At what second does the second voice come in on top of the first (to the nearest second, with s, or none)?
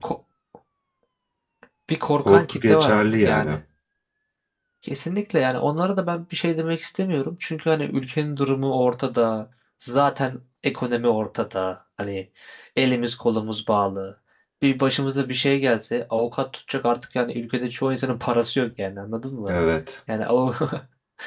2 s